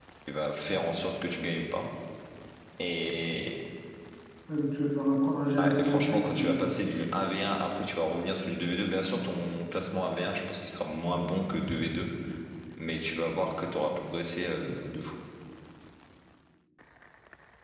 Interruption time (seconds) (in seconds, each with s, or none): 5.6 s